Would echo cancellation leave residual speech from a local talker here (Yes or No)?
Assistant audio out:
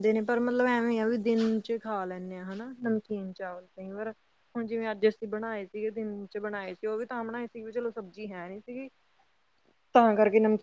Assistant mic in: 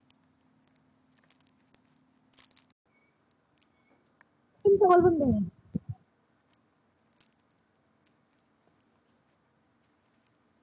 Yes